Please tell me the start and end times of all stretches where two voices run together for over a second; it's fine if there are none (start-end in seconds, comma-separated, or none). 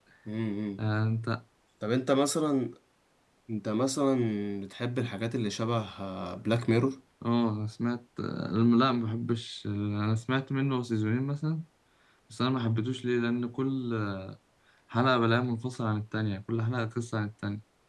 none